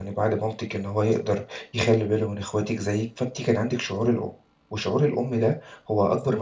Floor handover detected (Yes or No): No